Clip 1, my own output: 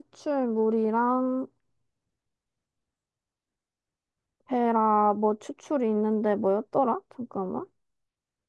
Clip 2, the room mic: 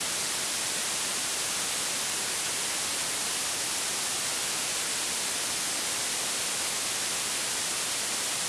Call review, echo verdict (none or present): none